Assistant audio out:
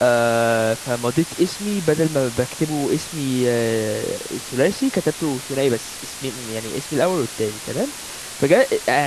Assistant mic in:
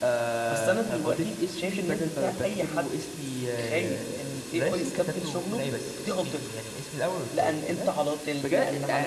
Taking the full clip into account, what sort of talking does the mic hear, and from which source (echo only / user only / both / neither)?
both